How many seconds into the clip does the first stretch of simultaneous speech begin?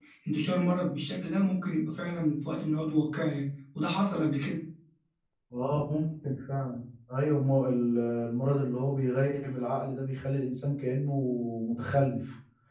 none

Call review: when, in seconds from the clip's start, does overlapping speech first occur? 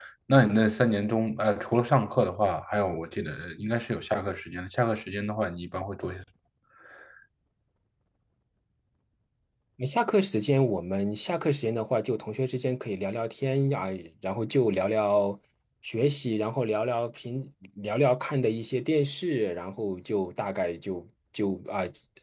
none

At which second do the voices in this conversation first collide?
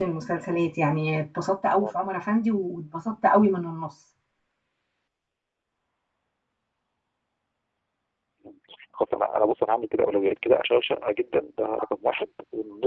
none

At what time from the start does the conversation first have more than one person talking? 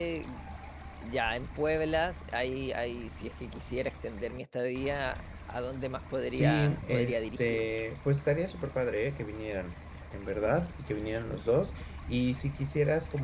6.3 s

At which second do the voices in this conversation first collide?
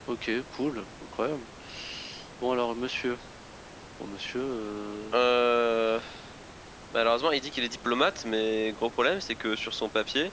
none

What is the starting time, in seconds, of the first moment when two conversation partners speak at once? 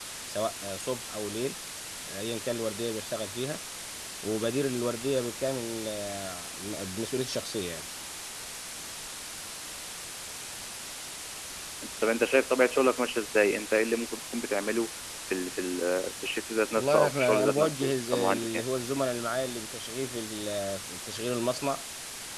16.7 s

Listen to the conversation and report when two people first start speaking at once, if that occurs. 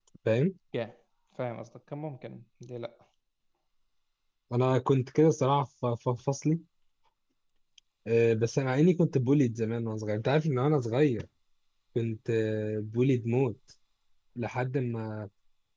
none

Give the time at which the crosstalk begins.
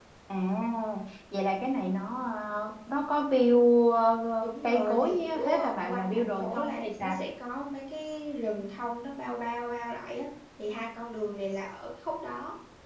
4.4 s

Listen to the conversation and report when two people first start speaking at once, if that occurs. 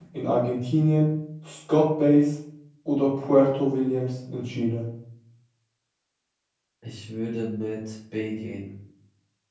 none

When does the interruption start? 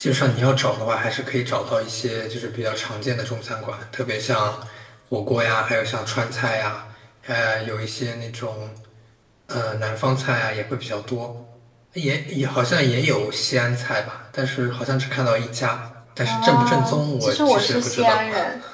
16.2 s

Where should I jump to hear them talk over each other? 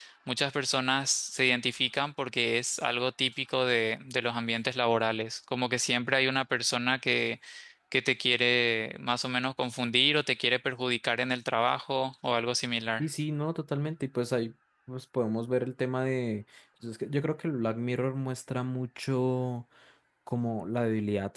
none

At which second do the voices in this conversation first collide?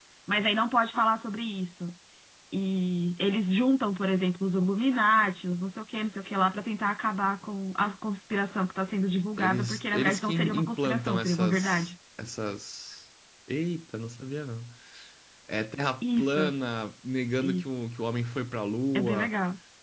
9.4 s

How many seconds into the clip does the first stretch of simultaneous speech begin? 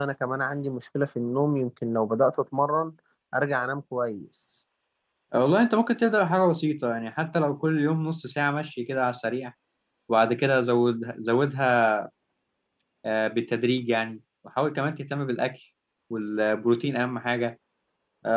none

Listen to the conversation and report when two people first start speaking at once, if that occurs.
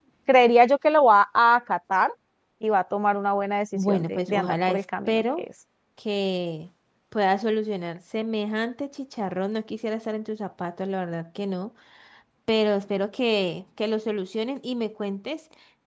3.7 s

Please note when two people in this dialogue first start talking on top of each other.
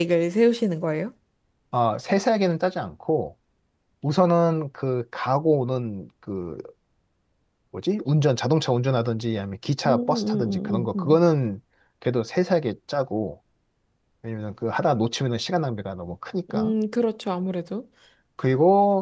9.8 s

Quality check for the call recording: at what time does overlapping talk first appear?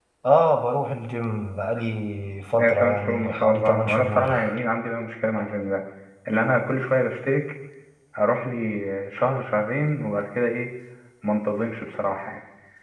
2.6 s

